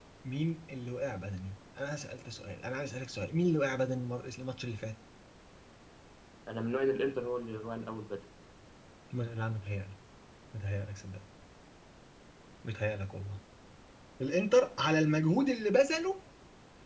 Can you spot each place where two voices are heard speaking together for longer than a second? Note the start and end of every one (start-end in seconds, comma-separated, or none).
none